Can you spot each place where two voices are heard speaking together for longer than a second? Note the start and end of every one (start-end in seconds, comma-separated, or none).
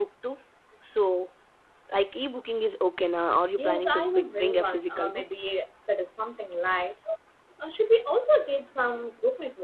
3.6-5.2